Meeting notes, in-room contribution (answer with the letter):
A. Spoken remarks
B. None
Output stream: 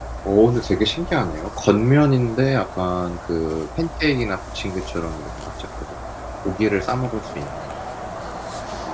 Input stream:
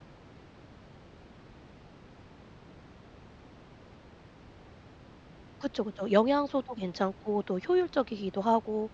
A